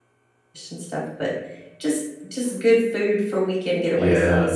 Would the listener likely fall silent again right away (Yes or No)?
No